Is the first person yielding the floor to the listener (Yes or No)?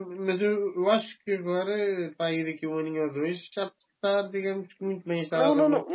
Yes